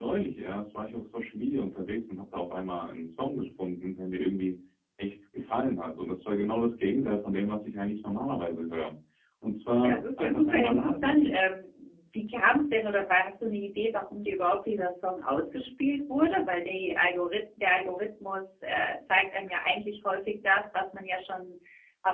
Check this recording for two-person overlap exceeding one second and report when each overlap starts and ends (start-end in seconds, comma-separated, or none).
9.8-11.3